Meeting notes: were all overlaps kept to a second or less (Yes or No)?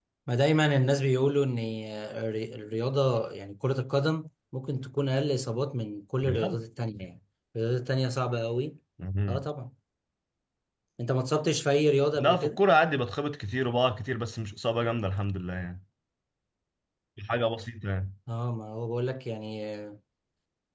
Yes